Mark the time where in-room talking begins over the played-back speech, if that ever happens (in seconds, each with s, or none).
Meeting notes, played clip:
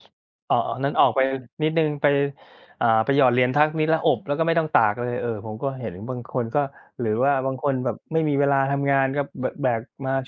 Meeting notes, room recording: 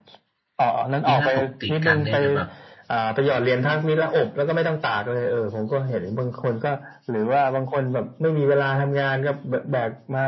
1.1 s